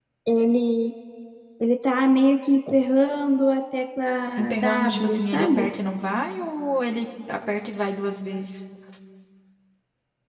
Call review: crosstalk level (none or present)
present